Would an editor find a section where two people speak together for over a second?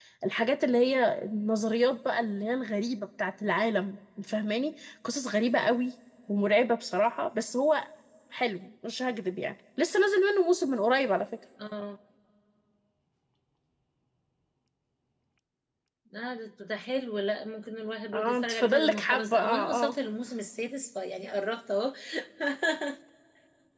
Yes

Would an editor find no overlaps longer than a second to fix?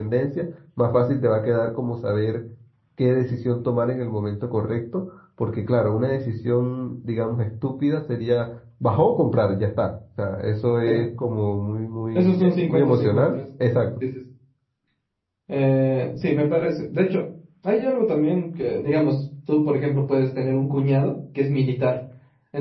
No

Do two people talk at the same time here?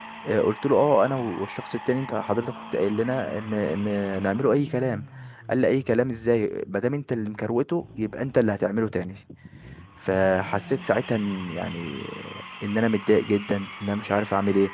No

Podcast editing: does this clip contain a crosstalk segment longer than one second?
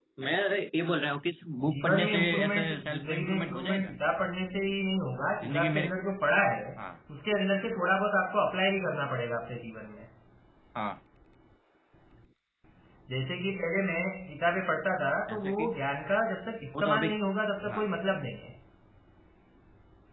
Yes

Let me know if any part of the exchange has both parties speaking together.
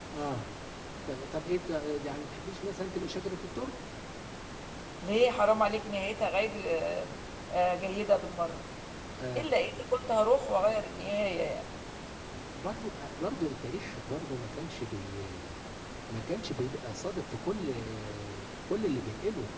No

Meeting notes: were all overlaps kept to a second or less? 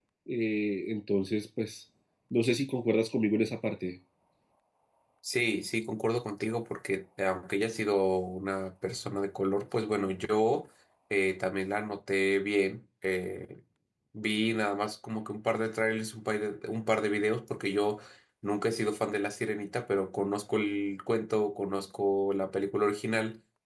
Yes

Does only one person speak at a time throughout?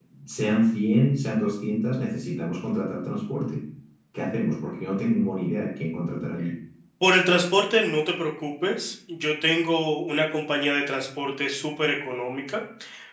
Yes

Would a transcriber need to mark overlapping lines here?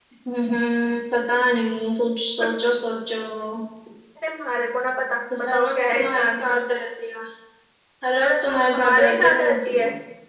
Yes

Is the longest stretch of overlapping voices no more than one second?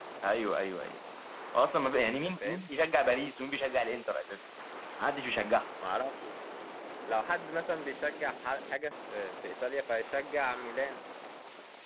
Yes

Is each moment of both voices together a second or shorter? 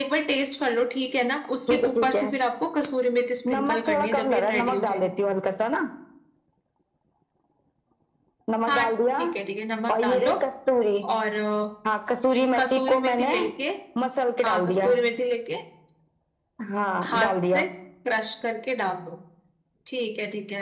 No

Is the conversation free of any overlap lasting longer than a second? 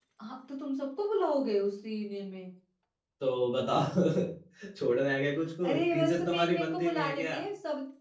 No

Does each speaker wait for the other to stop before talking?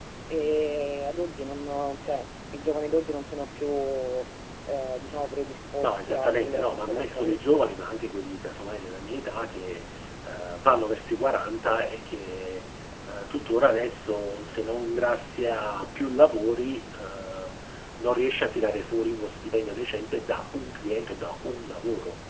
No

